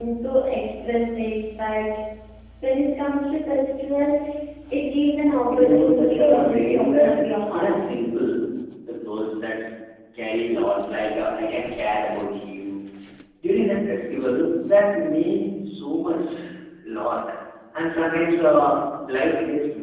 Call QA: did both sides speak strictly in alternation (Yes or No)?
No